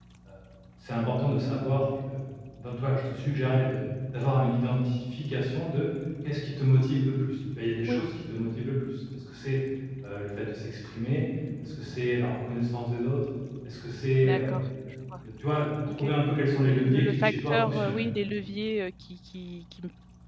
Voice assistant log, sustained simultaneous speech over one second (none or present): present